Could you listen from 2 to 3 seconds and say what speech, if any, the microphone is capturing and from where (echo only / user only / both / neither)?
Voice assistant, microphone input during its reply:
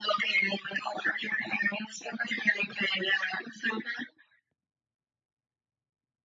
echo only